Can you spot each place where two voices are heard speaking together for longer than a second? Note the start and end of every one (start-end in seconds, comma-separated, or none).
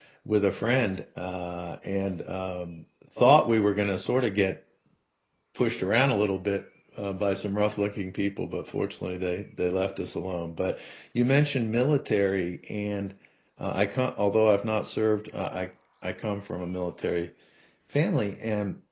none